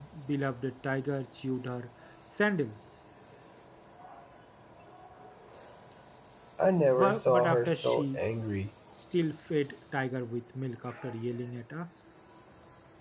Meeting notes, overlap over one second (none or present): present